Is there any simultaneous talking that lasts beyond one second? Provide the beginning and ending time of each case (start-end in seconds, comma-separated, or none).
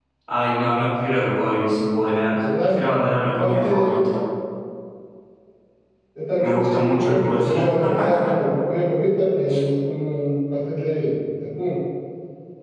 6.4-8.3